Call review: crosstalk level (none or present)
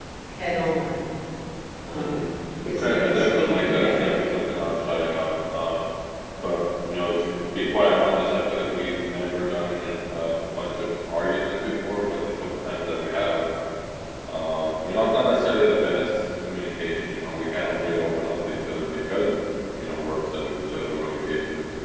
present